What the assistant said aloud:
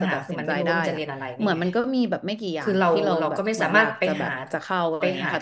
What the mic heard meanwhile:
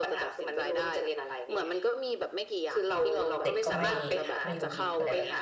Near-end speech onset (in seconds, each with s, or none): 3.4 s